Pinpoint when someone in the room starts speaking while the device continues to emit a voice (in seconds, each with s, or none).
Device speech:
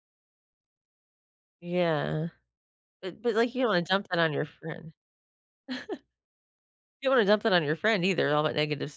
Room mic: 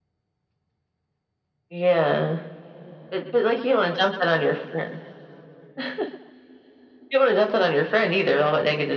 none